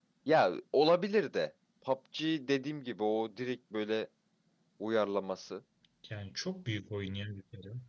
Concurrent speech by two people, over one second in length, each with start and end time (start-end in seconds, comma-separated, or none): none